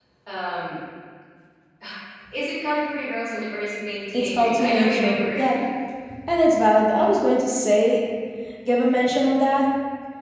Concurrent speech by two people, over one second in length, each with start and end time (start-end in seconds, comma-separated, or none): 4.1-5.4